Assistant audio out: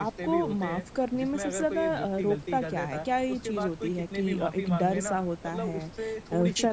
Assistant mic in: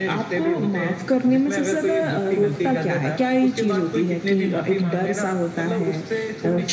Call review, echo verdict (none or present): present